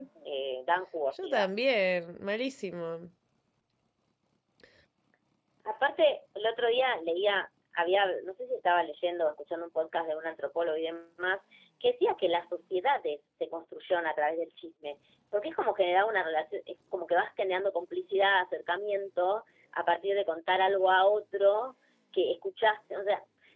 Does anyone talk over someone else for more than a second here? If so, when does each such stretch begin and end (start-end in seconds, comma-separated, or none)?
none